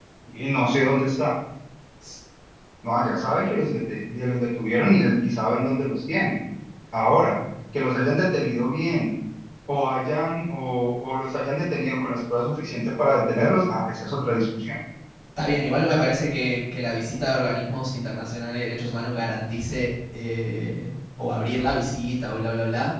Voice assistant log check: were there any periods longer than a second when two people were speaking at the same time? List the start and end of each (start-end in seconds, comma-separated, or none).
none